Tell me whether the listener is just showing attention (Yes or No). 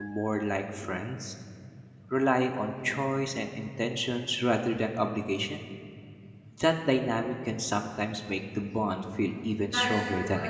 No